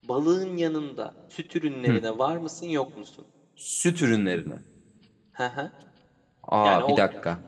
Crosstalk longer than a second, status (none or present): none